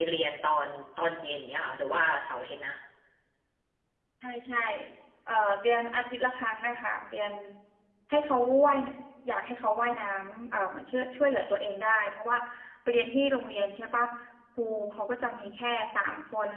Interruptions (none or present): none